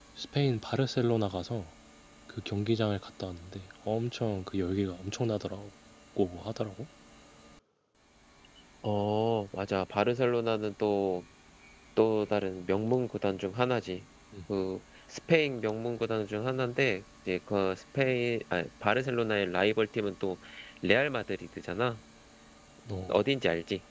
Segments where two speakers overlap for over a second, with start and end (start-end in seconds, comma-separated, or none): none